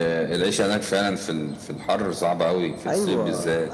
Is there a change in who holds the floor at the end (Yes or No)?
Yes